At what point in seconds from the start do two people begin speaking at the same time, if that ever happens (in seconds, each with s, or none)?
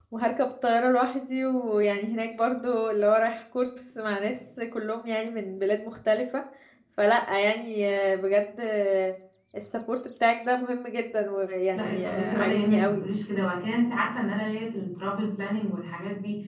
11.7 s